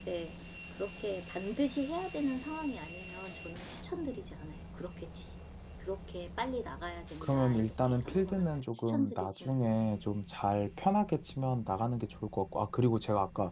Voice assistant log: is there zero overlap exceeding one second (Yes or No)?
No